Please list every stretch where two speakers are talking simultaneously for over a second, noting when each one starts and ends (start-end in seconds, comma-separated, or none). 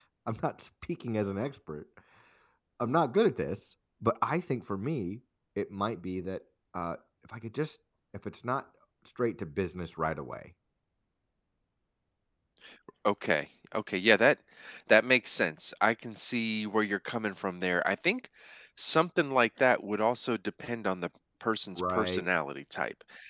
none